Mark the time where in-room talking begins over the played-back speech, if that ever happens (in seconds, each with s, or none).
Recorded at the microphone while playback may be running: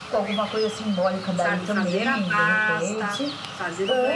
1.3 s